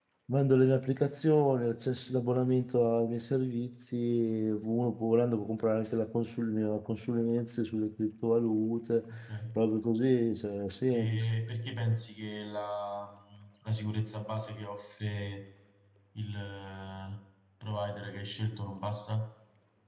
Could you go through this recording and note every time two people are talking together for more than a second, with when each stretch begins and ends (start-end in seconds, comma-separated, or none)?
none